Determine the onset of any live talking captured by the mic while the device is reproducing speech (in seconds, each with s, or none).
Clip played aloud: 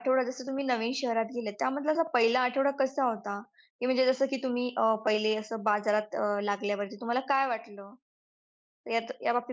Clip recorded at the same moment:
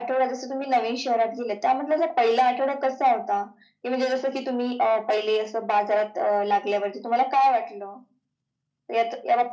none